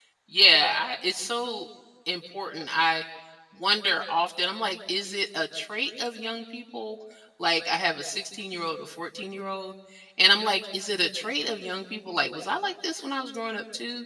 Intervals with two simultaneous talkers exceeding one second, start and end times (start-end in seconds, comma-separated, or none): none